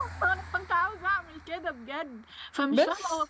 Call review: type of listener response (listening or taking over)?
listening